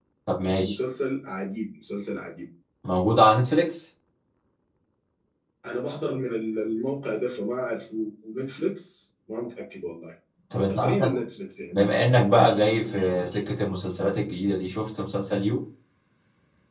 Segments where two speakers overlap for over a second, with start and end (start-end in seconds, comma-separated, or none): none